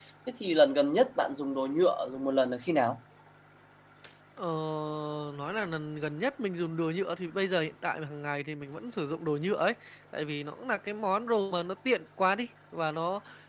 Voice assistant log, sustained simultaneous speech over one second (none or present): none